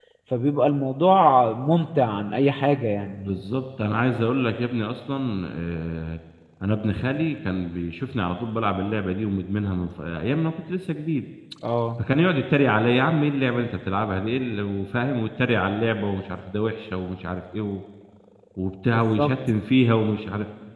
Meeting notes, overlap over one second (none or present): none